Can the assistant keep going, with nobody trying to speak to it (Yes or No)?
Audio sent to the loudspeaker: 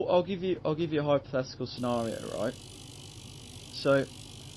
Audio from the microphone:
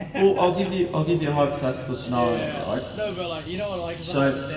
No